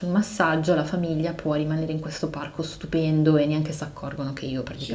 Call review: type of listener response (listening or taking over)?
taking over